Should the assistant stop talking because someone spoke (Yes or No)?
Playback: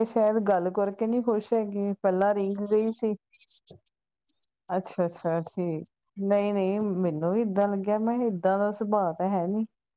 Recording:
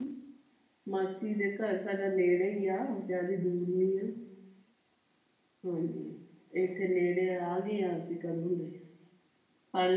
Yes